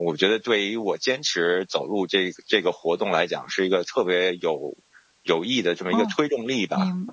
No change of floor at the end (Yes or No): No